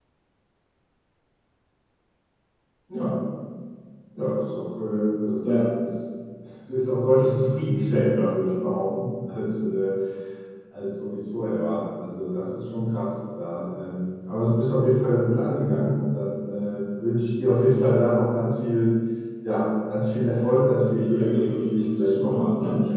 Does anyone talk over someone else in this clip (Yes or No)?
Yes